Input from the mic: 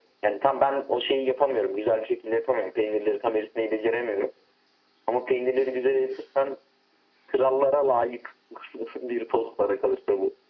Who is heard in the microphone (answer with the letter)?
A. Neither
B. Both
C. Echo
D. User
C